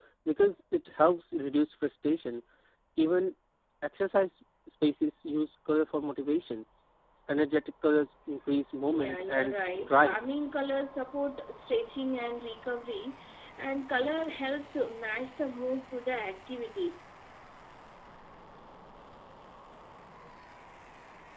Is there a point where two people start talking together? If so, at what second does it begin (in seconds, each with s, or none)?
8.8 s